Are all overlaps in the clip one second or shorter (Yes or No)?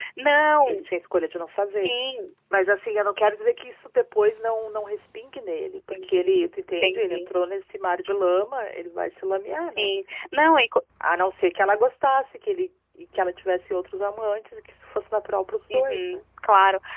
Yes